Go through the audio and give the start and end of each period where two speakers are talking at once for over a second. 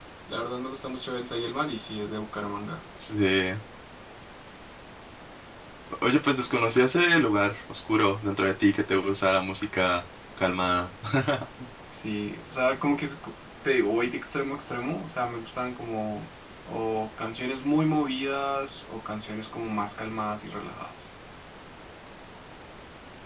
none

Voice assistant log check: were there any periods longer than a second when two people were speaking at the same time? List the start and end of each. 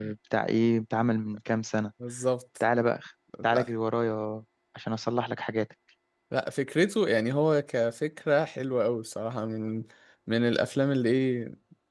none

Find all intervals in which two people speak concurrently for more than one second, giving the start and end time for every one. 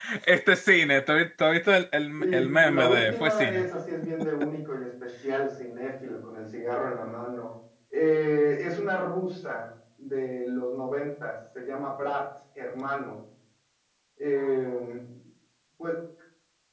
2.2-3.7

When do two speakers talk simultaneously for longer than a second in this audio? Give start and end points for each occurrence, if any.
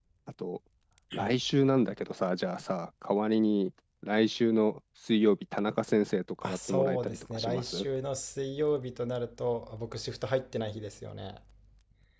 6.4-7.9

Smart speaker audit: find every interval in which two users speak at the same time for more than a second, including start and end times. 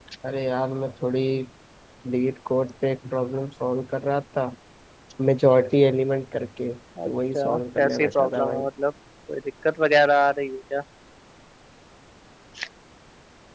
7.0-8.6

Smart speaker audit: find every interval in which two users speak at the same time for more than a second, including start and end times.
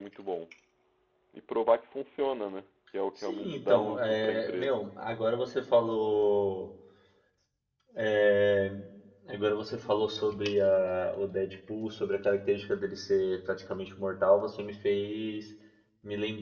3.2-4.8

